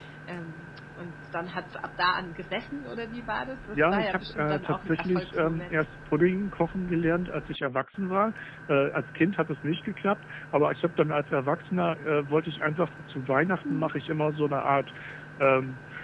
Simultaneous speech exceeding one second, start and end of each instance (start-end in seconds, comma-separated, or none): 3.7-5.8